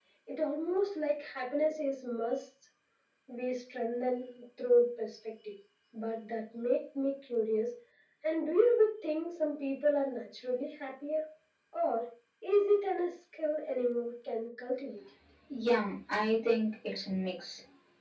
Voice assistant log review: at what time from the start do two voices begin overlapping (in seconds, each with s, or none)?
none